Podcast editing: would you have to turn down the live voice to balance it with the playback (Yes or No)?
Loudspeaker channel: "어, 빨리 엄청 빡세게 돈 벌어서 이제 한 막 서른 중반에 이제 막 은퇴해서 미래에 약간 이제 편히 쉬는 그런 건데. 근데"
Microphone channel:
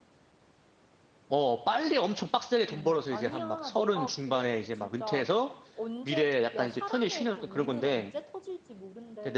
No